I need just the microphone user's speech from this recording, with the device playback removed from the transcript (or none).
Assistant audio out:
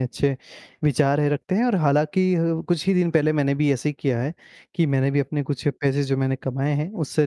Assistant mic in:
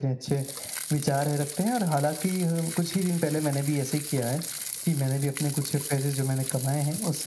none